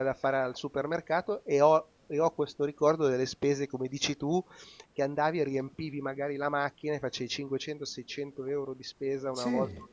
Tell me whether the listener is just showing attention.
Yes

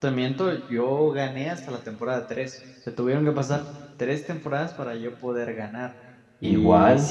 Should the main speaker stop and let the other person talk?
No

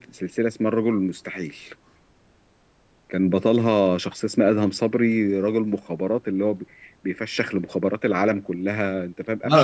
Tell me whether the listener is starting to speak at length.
Yes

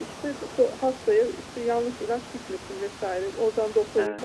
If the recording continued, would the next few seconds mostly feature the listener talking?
No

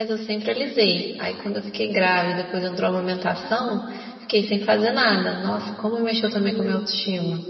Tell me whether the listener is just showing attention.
No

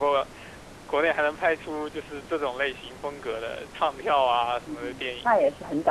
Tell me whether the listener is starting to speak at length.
Yes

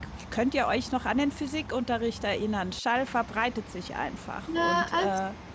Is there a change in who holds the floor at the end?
Yes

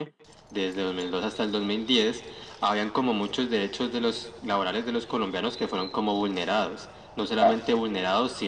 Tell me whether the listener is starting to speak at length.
No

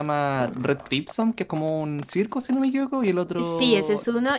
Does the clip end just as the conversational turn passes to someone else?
Yes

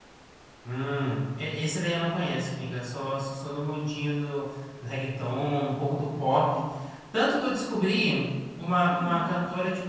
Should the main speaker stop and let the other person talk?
No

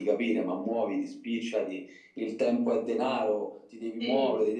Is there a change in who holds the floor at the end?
No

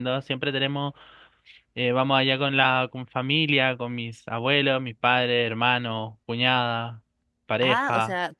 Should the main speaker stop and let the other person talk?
Yes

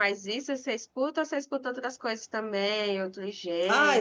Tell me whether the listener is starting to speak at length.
Yes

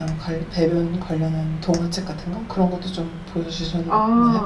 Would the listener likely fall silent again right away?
No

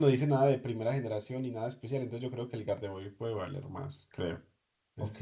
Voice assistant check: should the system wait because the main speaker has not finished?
No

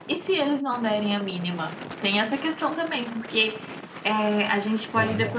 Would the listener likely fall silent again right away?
Yes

